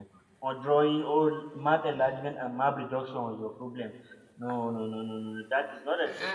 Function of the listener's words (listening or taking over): taking over